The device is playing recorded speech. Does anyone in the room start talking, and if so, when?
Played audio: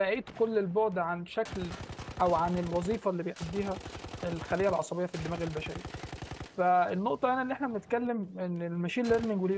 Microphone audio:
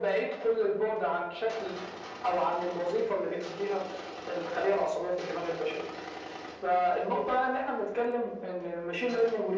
none

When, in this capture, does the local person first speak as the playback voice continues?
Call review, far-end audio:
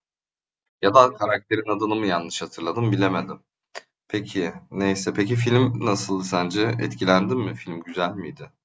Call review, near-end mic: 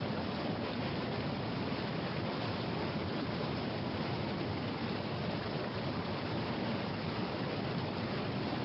none

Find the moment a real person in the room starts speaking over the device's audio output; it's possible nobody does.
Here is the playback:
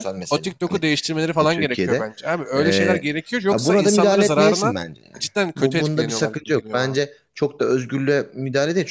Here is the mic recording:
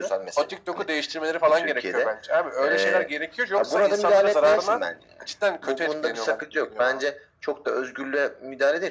none

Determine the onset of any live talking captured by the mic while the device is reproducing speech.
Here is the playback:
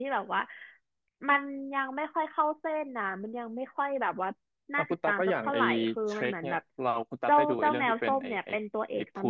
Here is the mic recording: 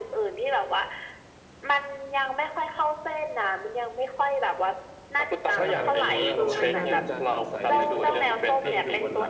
5.5 s

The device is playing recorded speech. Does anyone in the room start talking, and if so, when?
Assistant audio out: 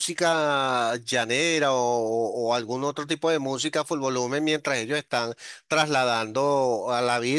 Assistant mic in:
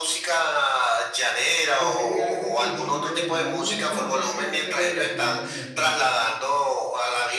1.8 s

